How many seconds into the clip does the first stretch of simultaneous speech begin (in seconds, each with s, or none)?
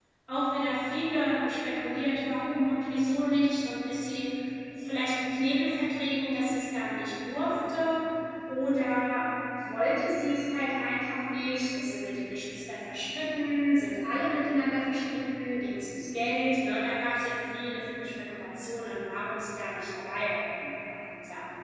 none